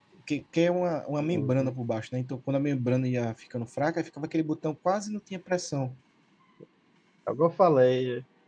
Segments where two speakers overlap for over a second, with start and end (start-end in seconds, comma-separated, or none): none